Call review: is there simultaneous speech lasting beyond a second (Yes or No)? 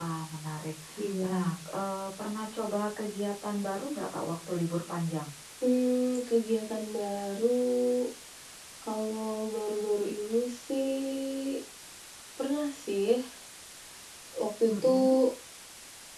No